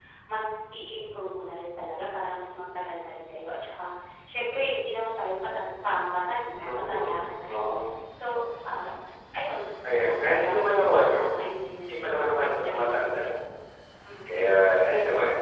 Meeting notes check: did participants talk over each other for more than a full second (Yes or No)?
Yes